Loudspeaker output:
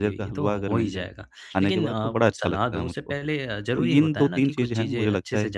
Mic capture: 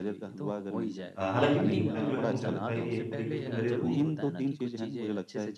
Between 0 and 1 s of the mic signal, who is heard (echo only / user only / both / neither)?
echo only